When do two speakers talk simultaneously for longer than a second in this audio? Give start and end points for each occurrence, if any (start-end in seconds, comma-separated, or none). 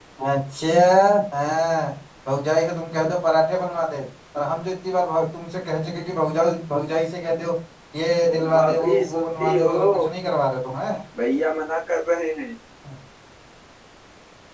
8.2-9.8